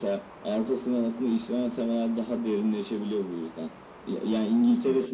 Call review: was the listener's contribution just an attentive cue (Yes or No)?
Yes